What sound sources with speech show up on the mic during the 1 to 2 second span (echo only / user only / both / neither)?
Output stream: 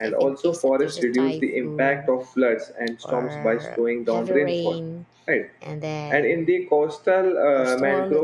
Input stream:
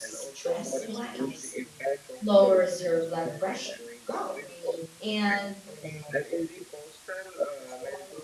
both